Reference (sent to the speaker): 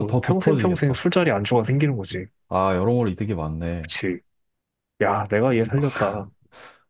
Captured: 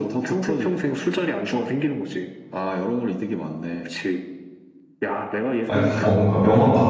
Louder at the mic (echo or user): user